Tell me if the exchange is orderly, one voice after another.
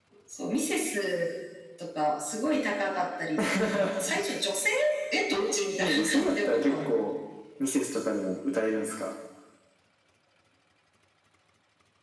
No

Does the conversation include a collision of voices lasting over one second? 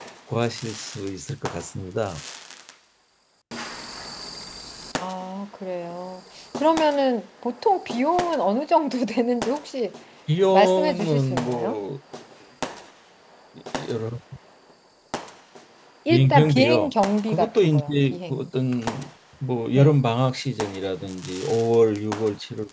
Yes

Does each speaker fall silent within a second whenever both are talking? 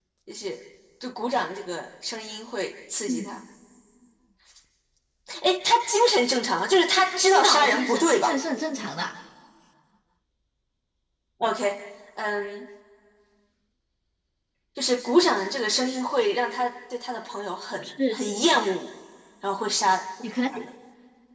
No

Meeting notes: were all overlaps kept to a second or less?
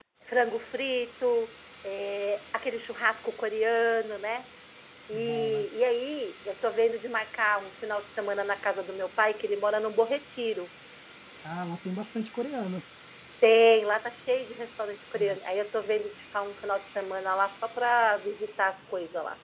Yes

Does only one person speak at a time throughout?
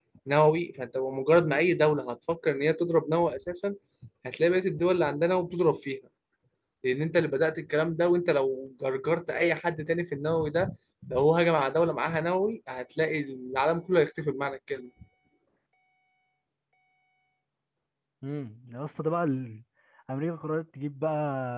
Yes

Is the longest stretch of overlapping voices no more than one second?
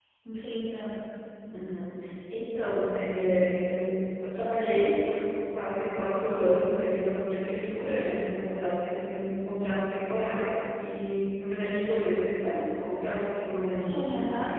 Yes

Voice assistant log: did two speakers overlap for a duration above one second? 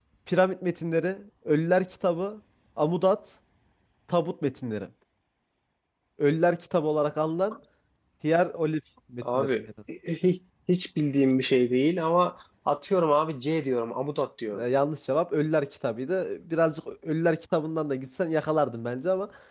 No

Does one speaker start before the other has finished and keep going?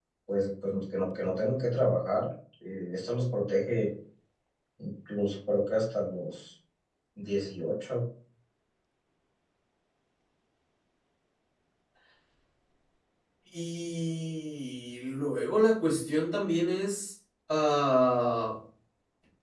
No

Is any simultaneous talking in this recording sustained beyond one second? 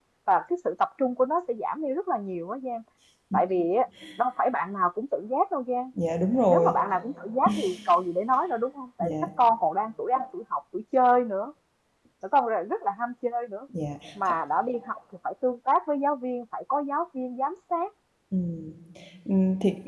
No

